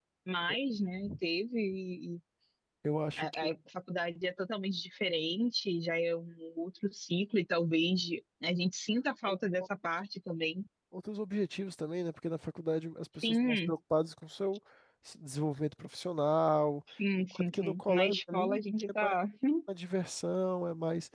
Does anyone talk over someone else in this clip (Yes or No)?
Yes